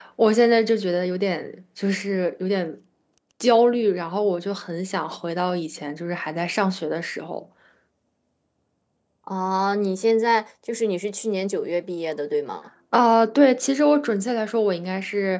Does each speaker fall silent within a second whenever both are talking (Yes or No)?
Yes